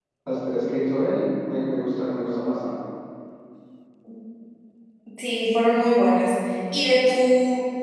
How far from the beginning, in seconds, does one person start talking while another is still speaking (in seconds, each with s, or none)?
none